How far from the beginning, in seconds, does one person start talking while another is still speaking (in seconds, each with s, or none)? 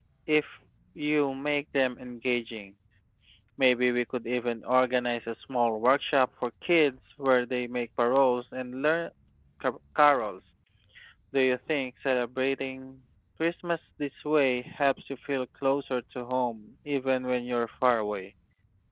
none